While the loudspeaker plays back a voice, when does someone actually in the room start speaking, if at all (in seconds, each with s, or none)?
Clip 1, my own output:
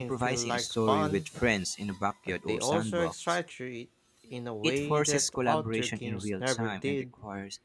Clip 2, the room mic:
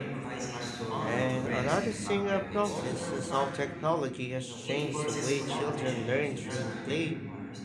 0.9 s